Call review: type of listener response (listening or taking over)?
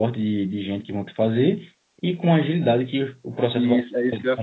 taking over